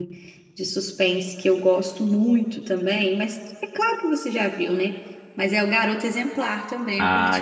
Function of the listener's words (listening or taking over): taking over